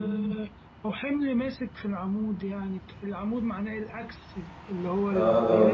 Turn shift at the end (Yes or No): Yes